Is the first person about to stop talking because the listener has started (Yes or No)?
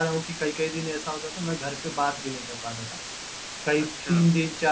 No